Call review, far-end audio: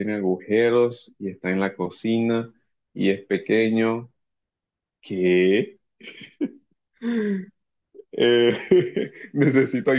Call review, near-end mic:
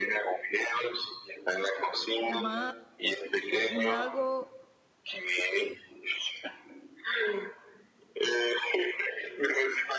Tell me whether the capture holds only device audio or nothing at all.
No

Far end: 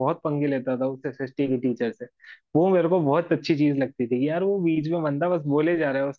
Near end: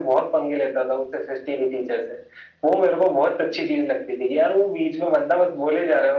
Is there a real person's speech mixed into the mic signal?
No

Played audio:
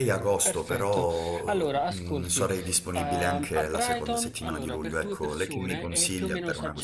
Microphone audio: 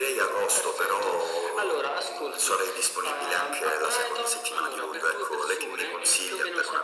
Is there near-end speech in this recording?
No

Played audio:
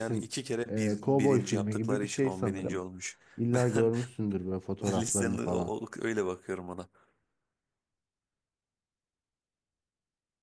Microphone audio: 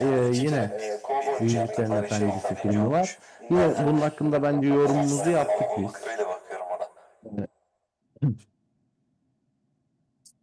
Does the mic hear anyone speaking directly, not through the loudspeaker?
Yes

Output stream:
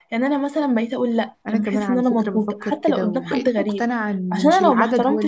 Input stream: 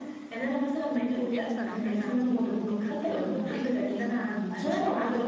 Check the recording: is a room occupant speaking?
Yes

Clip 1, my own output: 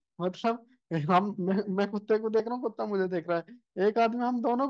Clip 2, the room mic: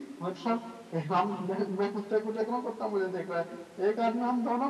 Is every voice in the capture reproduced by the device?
Yes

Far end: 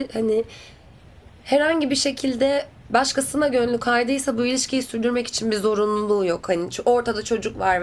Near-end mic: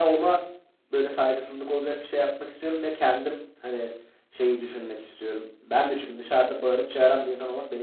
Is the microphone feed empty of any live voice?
No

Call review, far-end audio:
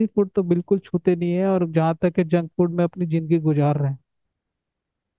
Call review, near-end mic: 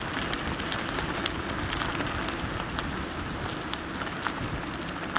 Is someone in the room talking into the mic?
No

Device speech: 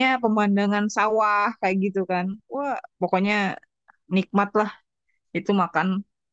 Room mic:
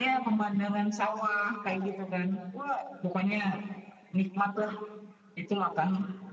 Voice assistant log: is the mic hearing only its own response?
Yes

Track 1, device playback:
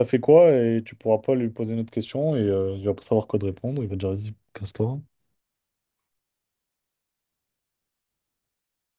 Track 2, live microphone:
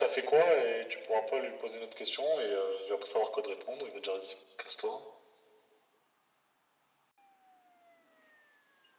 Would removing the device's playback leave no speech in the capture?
Yes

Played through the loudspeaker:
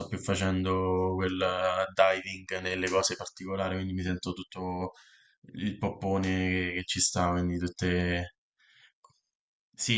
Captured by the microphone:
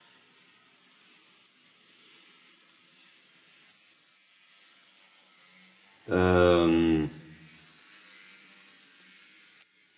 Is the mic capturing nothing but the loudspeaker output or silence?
No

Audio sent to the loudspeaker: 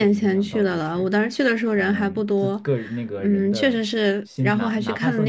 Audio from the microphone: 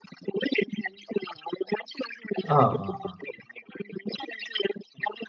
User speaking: Yes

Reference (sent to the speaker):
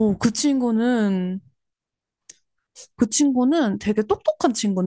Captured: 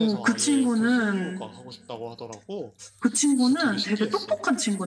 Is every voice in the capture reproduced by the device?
No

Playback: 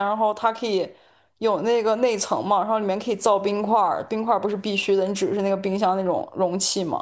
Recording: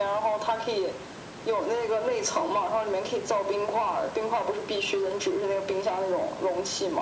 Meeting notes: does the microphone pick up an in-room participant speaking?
No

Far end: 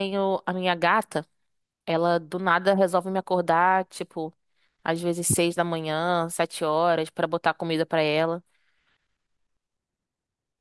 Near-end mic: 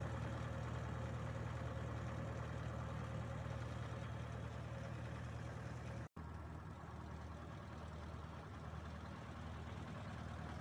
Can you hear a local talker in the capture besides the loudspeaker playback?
No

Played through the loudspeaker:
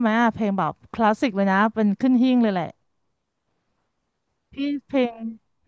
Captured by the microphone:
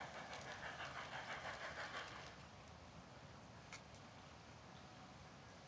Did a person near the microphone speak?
No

